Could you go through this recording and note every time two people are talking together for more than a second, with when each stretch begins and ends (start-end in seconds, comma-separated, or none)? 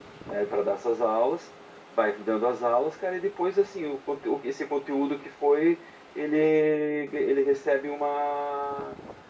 none